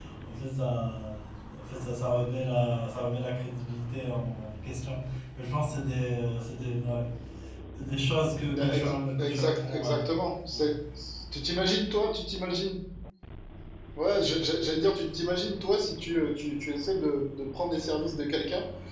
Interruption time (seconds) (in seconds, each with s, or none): 8.5 s